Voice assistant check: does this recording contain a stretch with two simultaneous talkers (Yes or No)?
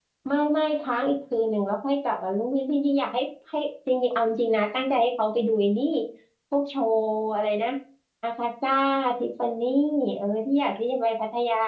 No